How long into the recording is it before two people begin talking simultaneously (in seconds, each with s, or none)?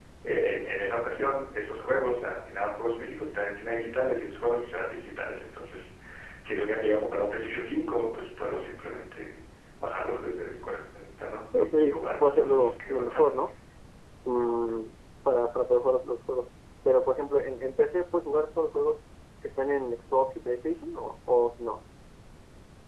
11.5 s